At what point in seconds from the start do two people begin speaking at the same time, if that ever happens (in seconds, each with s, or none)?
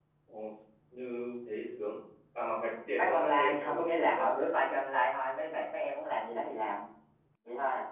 3.0 s